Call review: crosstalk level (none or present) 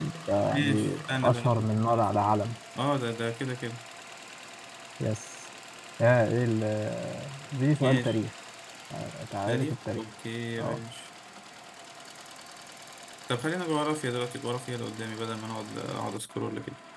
present